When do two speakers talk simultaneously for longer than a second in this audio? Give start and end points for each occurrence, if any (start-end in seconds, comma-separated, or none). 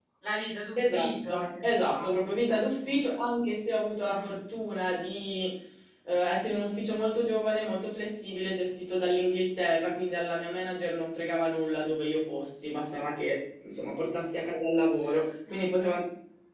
0.8-3.0